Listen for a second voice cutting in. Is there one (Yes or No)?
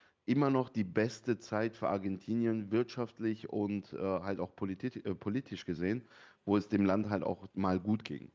No